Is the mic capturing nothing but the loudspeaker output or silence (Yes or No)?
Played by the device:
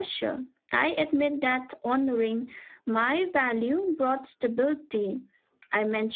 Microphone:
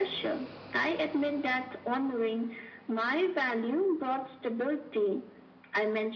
Yes